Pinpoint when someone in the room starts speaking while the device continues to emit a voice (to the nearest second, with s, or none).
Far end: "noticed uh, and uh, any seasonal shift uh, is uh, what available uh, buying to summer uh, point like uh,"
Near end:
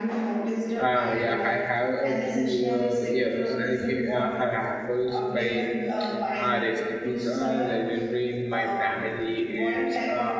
1 s